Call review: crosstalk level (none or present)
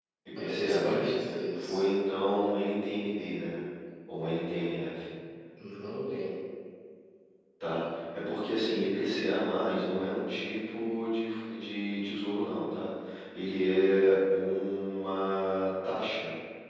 present